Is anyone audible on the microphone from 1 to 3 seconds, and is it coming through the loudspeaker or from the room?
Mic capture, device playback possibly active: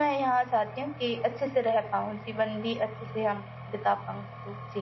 echo only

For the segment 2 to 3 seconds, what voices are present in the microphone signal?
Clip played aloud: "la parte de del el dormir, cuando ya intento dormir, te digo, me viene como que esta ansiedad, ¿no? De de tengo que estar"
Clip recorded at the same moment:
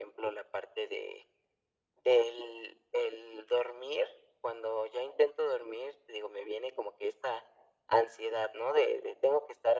echo only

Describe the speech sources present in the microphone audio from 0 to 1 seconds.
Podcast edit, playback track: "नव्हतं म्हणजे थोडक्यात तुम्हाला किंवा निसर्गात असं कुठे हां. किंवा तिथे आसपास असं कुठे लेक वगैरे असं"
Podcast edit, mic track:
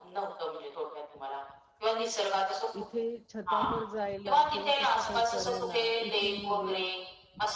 echo only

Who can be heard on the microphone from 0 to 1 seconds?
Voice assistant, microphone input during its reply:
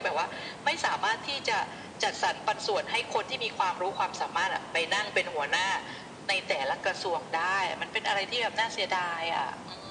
echo only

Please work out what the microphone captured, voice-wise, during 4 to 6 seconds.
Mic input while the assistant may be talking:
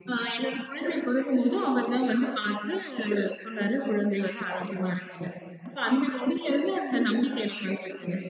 echo only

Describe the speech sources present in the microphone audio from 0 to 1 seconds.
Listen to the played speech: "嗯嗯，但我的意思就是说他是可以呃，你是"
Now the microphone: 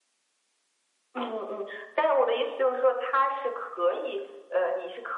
neither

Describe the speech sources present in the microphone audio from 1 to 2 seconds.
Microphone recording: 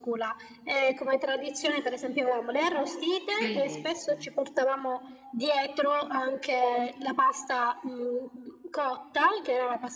echo only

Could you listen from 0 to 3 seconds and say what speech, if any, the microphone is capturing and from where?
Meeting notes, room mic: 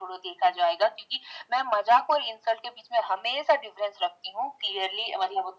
echo only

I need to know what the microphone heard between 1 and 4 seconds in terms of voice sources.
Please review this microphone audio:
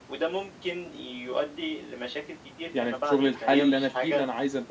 both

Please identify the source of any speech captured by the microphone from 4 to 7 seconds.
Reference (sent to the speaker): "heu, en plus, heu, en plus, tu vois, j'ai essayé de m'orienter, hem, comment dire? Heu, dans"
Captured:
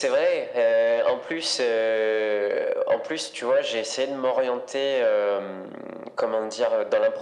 echo only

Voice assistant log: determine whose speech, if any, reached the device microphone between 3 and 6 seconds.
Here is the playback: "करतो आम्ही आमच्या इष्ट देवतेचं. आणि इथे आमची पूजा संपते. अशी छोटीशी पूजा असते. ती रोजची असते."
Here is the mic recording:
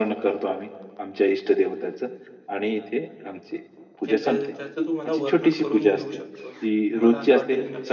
both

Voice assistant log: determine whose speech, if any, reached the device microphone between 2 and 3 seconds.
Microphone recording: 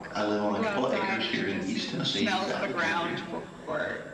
both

